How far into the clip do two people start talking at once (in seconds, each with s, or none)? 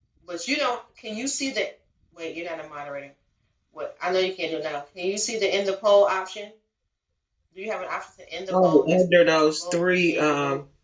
8.5 s